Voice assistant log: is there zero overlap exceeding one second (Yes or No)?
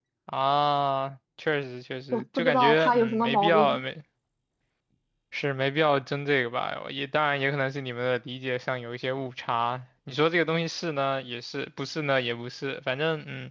No